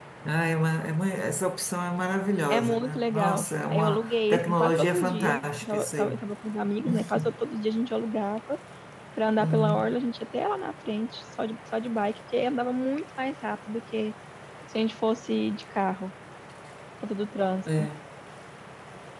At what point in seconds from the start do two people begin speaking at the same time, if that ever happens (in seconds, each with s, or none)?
2.5 s